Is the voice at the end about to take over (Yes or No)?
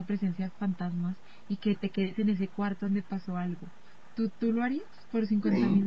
Yes